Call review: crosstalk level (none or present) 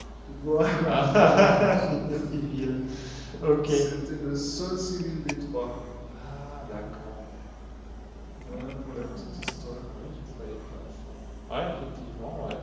present